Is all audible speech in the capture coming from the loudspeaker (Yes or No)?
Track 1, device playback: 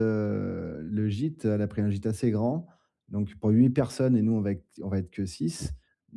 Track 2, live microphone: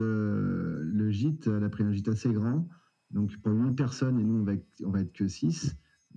Yes